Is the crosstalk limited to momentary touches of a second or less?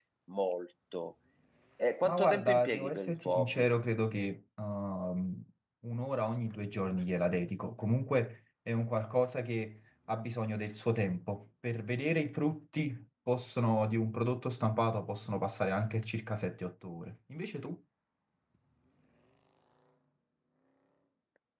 No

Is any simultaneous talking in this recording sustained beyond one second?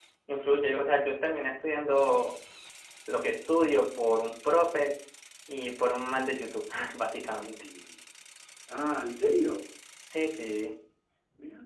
No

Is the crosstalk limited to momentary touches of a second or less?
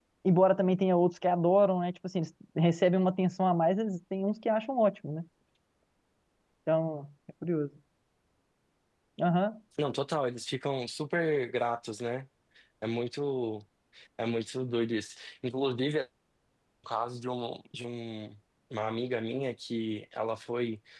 Yes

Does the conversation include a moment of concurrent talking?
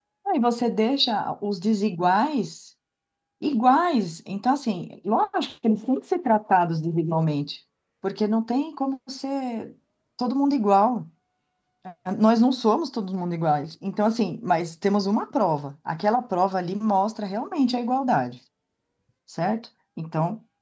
No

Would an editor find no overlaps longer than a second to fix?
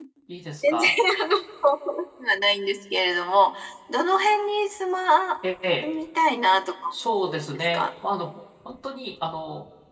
Yes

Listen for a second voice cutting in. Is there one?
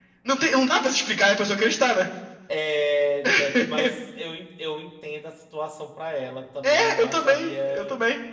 Yes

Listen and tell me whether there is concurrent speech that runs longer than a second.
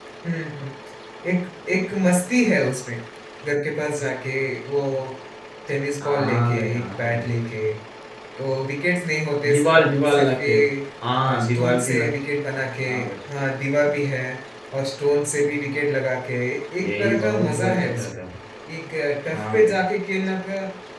Yes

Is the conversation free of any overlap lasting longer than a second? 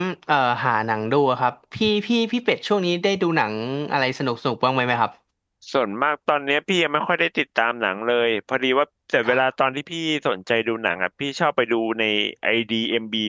Yes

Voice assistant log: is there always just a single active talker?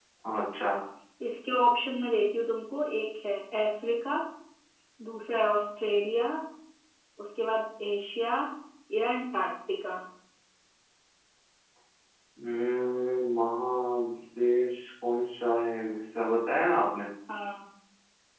Yes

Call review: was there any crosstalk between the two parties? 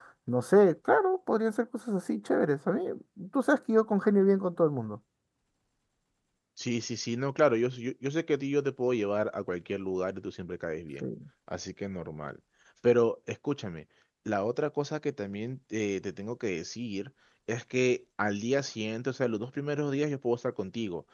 No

